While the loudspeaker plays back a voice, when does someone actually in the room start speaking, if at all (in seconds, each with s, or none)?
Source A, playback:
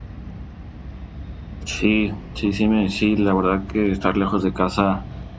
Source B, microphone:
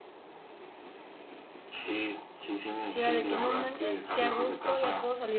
2.9 s